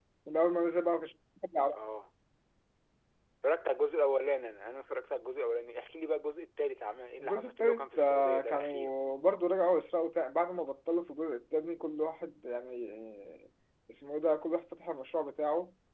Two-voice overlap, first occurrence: 7.2 s

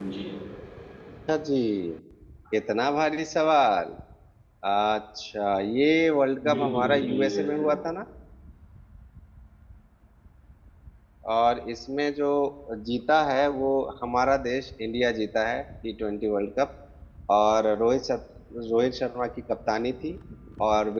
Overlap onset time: 6.4 s

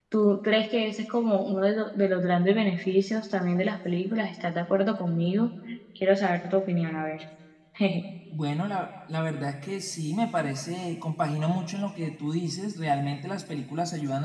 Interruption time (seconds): none

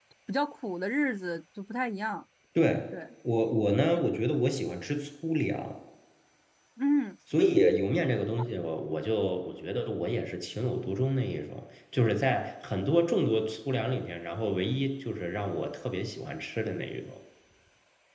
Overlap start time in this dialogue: none

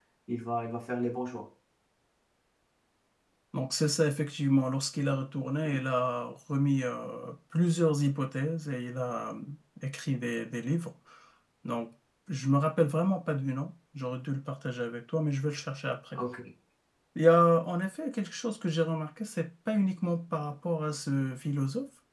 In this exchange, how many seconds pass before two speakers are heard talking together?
none

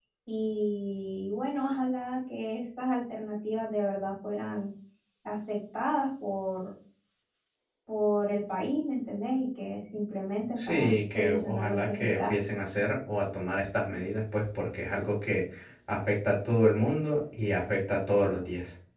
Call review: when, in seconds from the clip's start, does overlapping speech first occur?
10.6 s

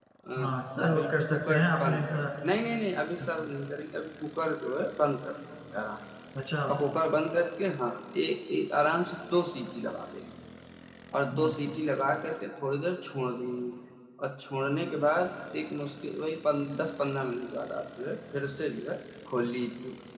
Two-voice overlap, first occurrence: 0.9 s

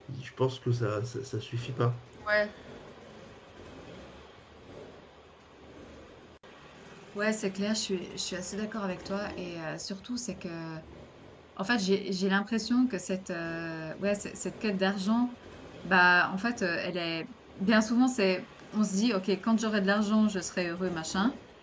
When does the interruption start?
none

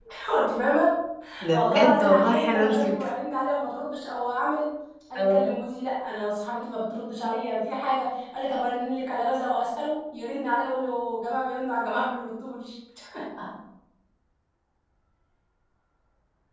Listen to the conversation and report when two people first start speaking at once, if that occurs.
1.5 s

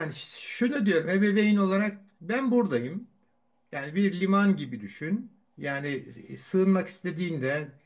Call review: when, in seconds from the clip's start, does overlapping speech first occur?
none

